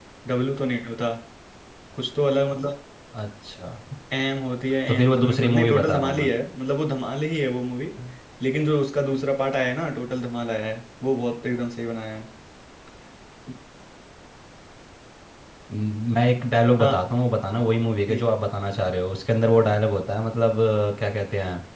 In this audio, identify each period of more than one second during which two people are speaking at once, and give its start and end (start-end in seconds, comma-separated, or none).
4.9-6.3